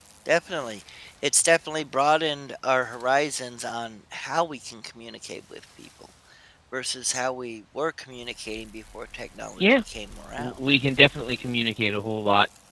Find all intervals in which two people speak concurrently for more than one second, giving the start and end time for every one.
none

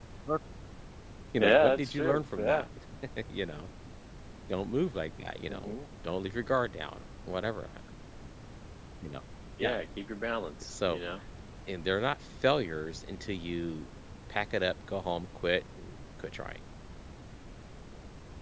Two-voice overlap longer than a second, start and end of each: 1.4-2.6

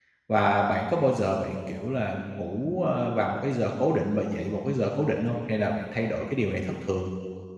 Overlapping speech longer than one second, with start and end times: none

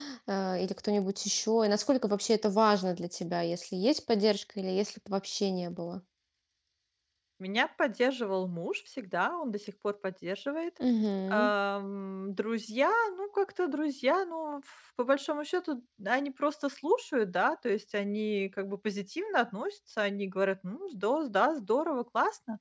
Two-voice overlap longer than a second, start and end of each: none

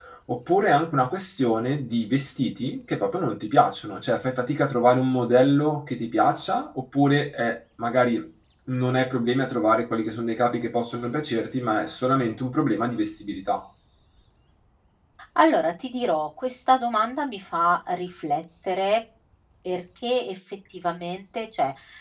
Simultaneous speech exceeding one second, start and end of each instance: none

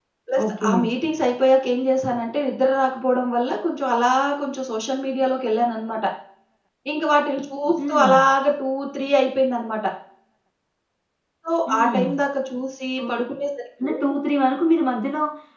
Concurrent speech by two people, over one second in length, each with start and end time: none

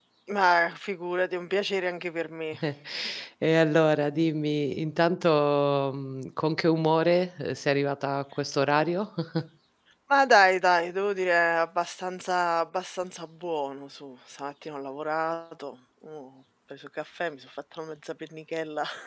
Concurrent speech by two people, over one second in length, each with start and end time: none

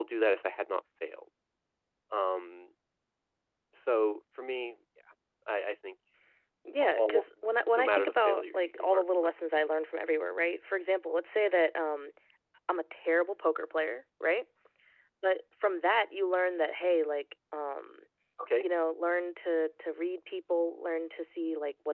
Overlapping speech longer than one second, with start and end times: 7.7-9.3

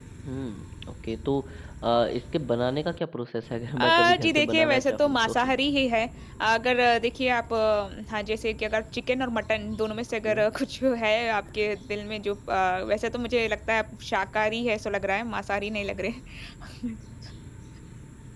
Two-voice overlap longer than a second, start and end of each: 3.8-5.5

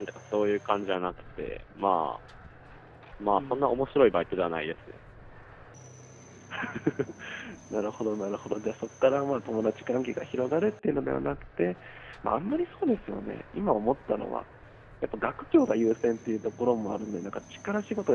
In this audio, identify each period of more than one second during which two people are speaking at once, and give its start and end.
none

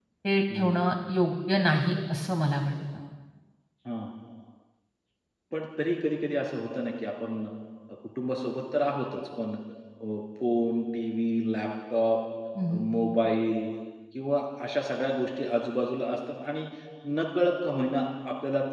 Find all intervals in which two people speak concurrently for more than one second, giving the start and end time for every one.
none

